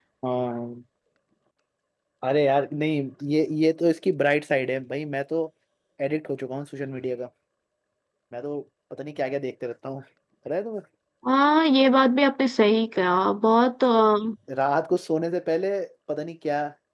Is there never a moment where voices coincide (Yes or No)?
Yes